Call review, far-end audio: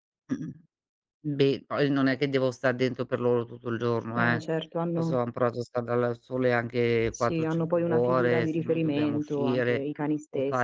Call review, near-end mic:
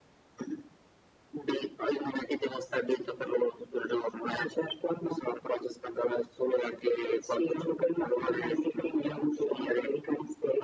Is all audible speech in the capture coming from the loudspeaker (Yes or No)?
Yes